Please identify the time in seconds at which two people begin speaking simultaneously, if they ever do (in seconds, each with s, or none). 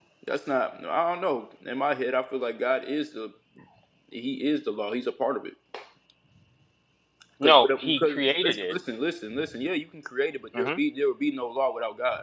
7.4 s